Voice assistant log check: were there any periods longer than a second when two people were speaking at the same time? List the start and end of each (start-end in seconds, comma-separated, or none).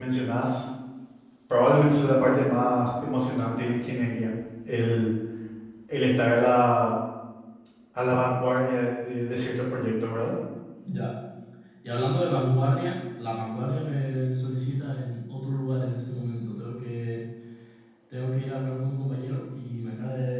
none